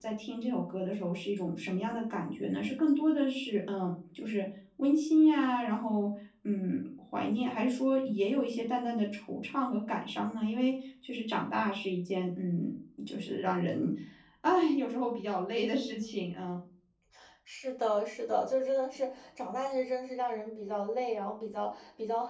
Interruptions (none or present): none